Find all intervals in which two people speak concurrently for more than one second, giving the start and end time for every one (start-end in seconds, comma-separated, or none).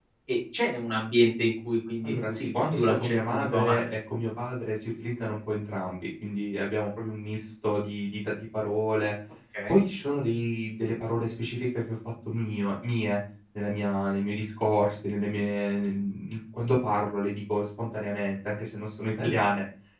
2.0-4.0